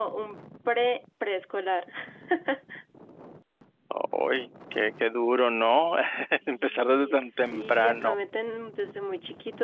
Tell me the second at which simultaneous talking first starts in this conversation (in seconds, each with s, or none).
6.5 s